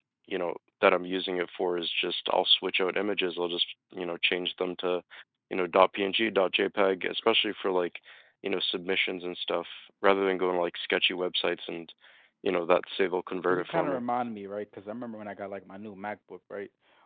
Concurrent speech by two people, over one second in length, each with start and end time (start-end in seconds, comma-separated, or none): none